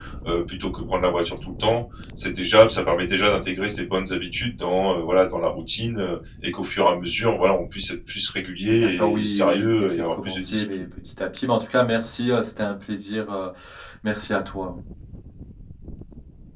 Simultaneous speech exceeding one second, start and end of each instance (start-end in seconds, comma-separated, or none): 8.7-10.9